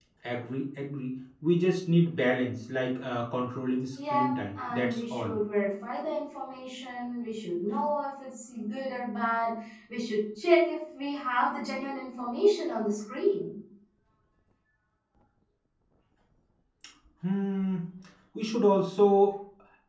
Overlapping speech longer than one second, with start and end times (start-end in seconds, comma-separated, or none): 4.1-5.3